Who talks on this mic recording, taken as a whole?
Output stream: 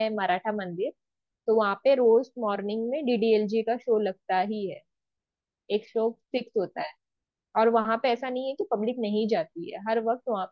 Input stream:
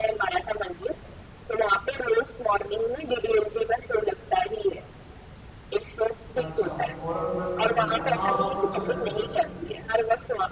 both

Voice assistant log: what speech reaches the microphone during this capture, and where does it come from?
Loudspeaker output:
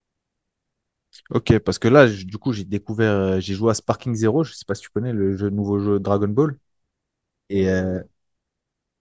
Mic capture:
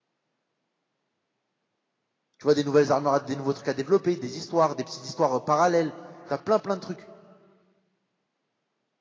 user only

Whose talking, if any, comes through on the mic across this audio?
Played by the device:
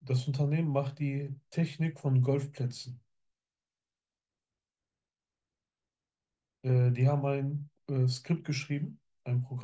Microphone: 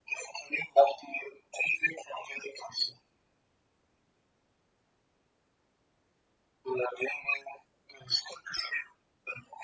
echo only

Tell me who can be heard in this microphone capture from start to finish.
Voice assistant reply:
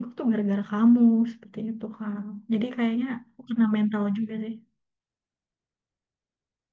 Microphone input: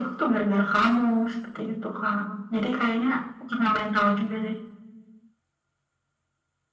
echo only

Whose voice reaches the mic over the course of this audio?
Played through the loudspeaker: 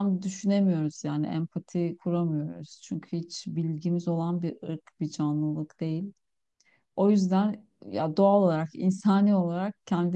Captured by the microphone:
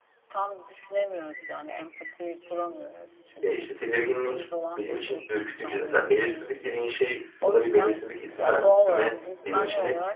both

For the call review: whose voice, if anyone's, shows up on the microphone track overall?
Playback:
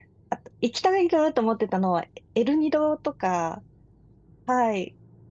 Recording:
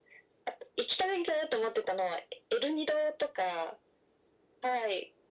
echo only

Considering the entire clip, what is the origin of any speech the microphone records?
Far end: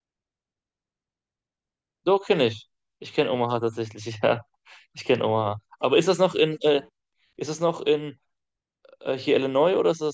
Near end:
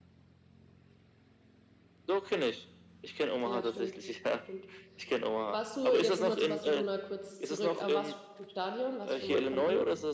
both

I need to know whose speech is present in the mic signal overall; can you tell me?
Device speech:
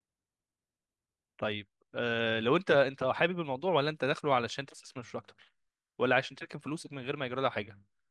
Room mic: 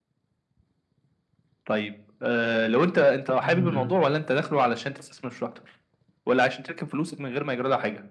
both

